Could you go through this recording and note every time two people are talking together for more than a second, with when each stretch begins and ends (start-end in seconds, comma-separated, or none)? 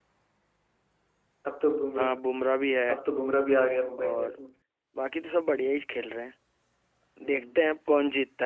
none